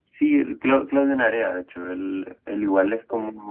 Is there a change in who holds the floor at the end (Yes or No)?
No